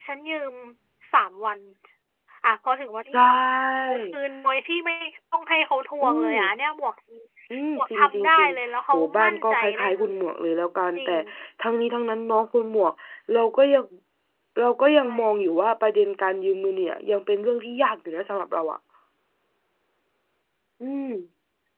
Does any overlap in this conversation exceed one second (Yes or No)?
Yes